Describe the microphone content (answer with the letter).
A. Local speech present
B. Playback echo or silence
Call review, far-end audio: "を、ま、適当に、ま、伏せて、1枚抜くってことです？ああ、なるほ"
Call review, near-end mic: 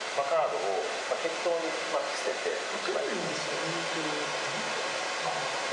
A